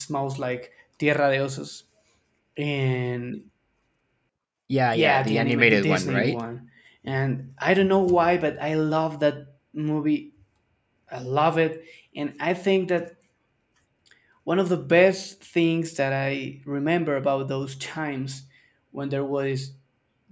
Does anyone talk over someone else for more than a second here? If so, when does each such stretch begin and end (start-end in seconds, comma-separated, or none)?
4.9-6.3